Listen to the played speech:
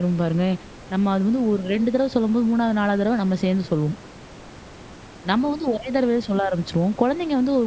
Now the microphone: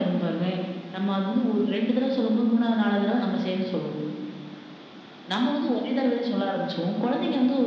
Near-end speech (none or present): none